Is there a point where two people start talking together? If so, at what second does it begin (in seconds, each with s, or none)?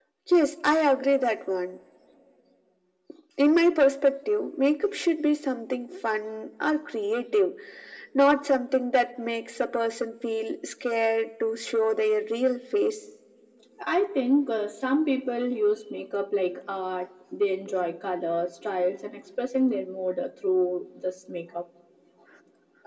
none